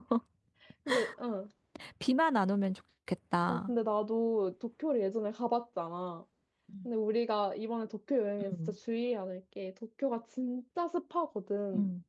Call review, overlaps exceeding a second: none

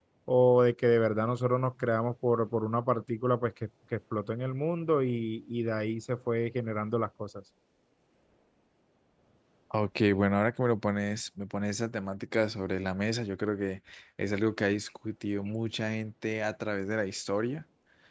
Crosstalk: none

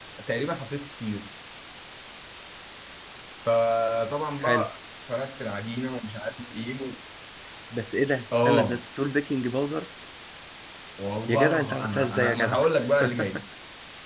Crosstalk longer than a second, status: present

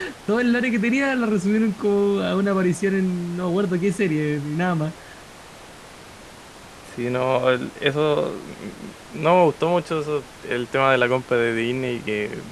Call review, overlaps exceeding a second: none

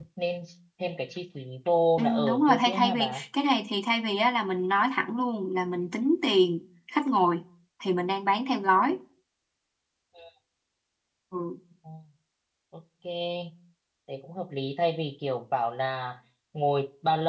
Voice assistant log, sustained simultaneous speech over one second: present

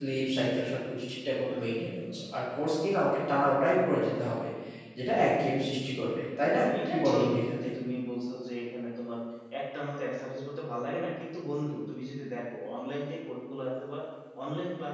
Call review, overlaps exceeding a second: present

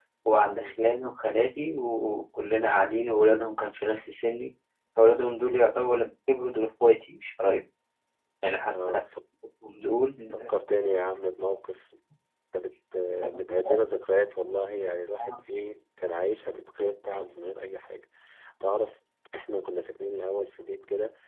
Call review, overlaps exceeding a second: none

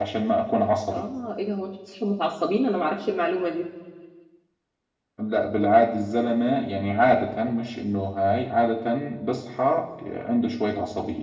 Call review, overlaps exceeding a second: none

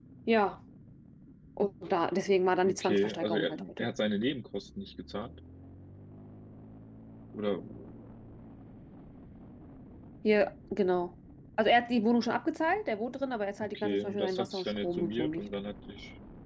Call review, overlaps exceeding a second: present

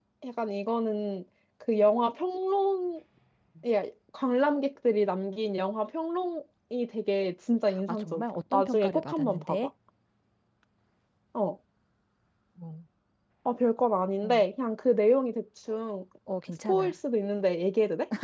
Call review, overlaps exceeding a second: present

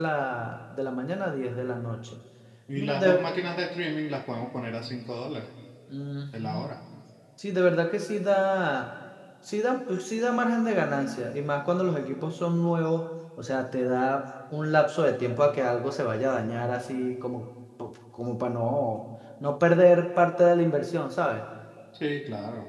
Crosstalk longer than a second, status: none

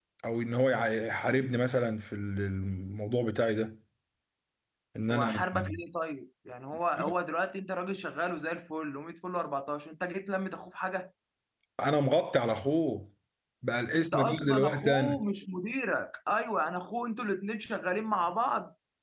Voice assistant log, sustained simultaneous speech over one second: present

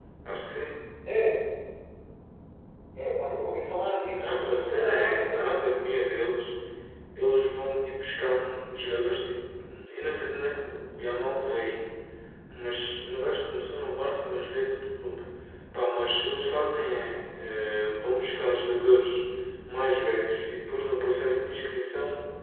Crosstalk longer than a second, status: present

